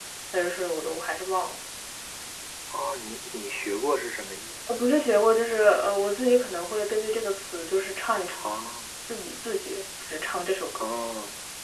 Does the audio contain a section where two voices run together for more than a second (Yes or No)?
No